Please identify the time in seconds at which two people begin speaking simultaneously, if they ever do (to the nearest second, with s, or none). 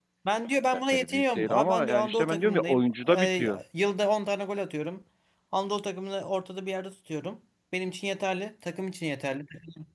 1 s